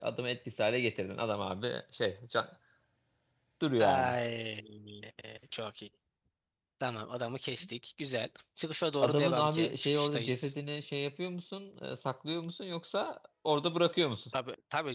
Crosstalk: present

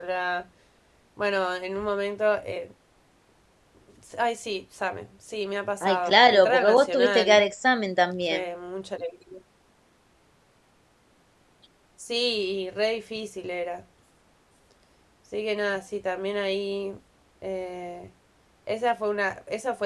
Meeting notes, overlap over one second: present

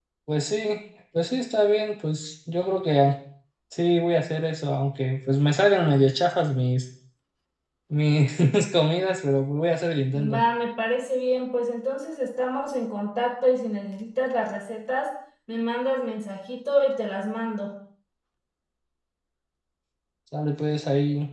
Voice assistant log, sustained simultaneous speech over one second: none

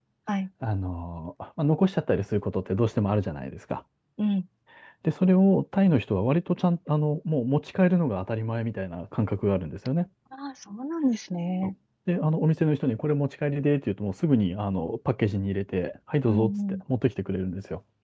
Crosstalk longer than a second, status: none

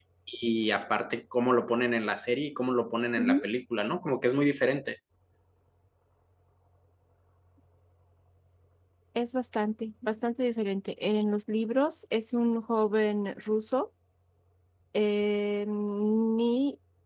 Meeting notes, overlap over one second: none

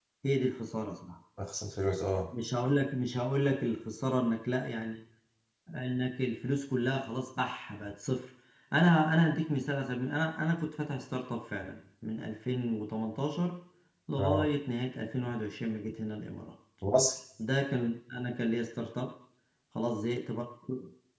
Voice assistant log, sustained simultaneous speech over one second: none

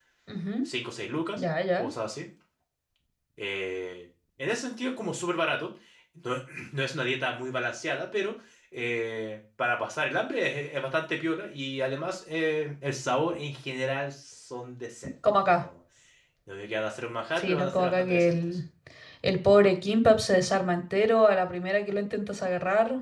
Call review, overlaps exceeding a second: present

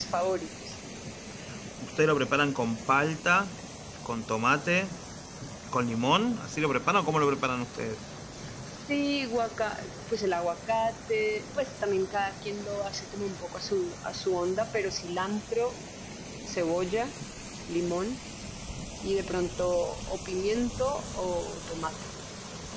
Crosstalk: none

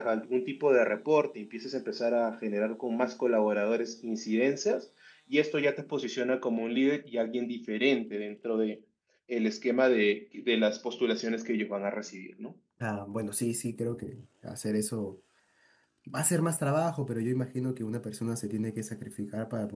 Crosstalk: none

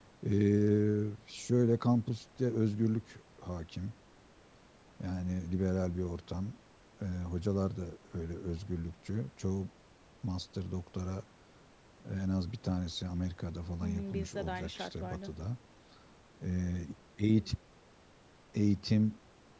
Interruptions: present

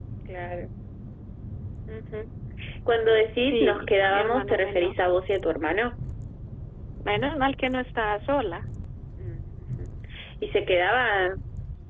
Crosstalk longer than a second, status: present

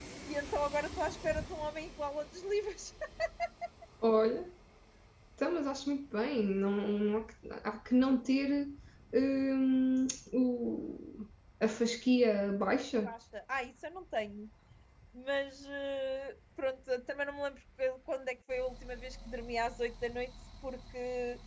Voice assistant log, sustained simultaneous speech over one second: none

